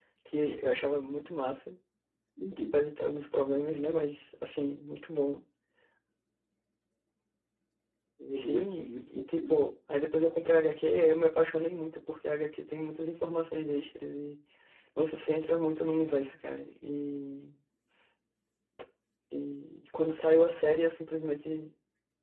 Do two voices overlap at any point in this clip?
Yes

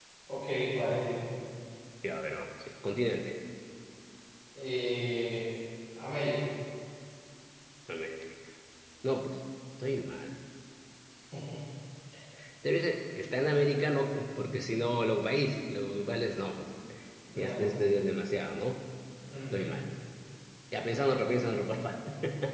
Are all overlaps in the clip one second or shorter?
Yes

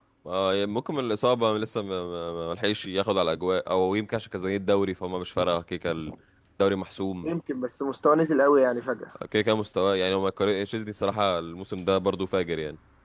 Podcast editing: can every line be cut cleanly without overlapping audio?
Yes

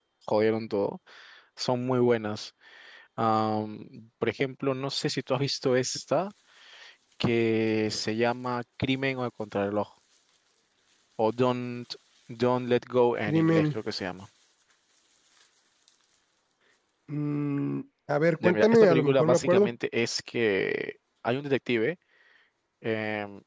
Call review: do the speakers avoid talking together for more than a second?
No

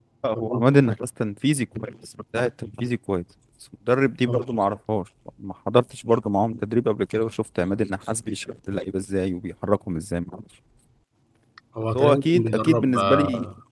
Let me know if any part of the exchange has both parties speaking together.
Yes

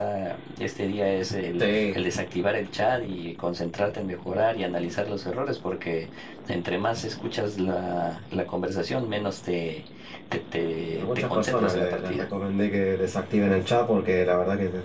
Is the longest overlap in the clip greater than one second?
Yes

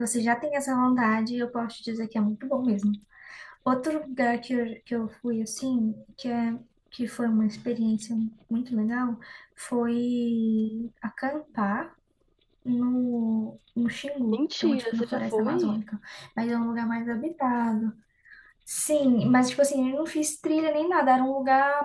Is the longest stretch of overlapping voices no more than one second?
No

